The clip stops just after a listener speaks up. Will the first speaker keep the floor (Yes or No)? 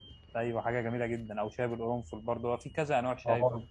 No